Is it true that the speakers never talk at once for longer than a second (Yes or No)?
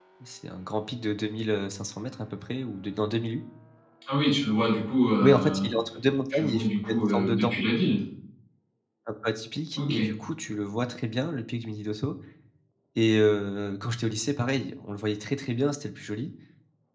No